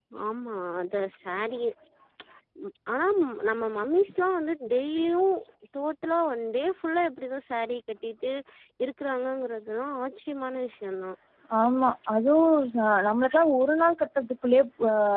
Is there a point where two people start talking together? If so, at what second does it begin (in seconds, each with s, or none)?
none